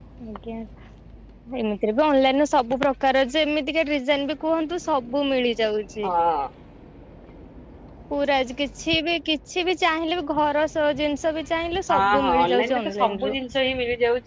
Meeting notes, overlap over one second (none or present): present